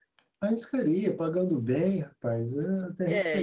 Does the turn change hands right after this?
Yes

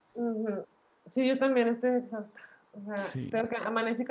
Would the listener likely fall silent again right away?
Yes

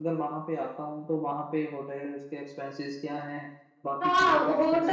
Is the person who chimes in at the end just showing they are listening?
No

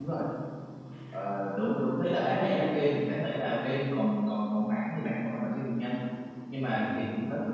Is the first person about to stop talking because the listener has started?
No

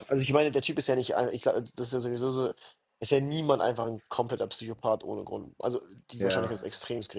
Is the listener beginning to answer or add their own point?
No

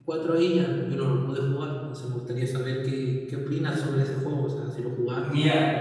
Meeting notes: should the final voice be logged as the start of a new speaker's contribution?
Yes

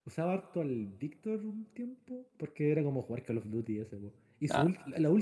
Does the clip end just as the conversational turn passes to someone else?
No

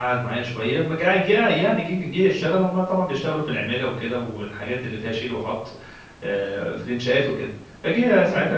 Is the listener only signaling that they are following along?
Yes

